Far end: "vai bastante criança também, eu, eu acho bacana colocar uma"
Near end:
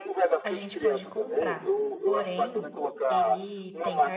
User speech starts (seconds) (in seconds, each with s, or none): 0.4 s